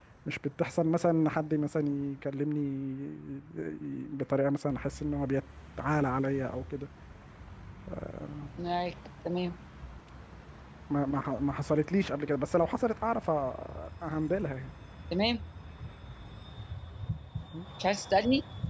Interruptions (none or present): none